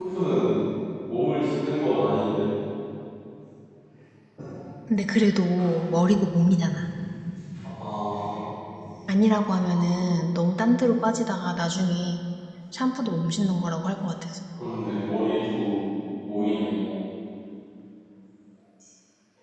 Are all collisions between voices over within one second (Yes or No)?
Yes